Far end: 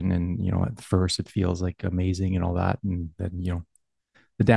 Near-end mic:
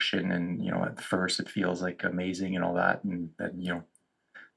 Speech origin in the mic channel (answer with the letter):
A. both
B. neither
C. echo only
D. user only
C